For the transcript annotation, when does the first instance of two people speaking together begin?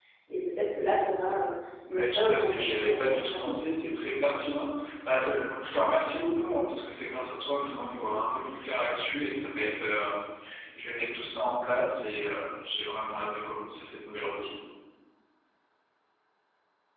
1.9 s

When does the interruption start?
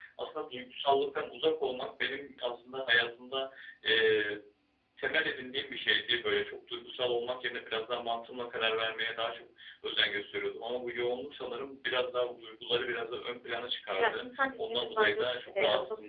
14.0 s

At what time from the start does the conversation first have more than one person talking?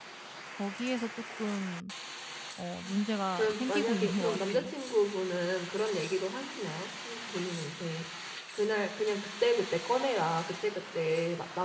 3.3 s

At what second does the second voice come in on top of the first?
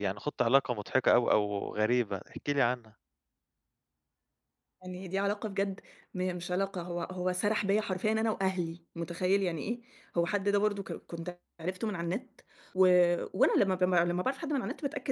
none

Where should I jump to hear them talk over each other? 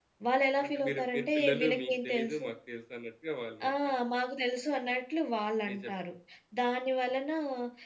0.6 s

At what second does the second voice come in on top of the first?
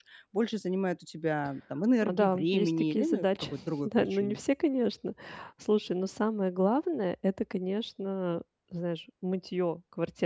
2.0 s

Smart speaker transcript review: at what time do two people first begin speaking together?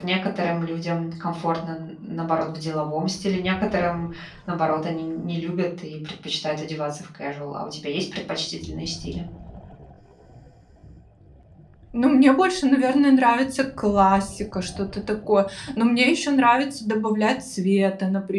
none

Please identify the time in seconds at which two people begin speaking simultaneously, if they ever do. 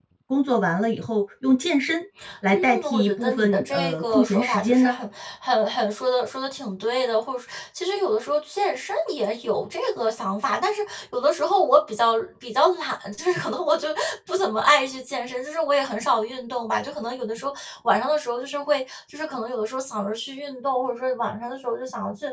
2.2 s

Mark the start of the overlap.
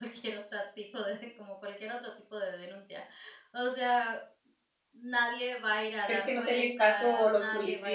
6.1 s

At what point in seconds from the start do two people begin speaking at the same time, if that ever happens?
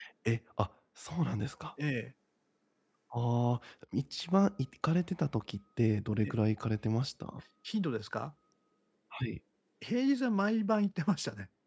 none

